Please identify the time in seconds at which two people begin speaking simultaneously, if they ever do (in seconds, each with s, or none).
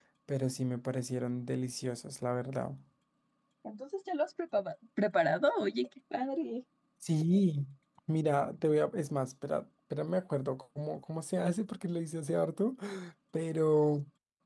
none